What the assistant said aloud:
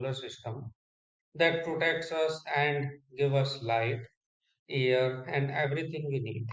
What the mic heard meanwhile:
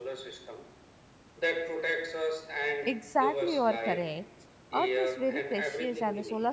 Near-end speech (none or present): present